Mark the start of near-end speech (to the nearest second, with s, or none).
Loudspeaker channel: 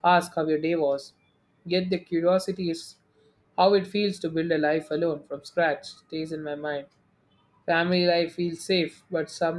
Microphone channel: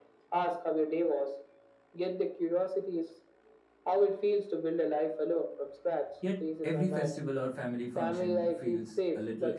6 s